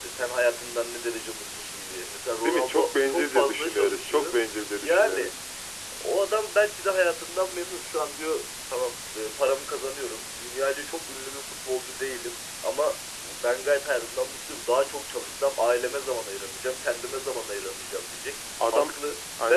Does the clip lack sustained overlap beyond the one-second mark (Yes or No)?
No